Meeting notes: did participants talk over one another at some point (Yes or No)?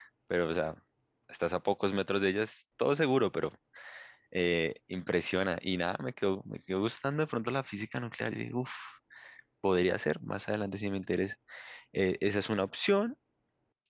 No